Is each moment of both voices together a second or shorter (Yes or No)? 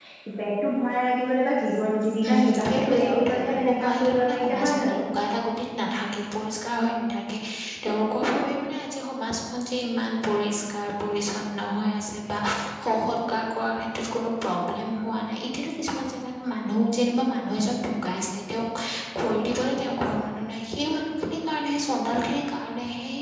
No